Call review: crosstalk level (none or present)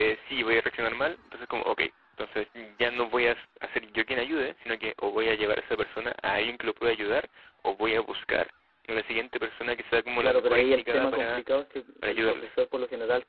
present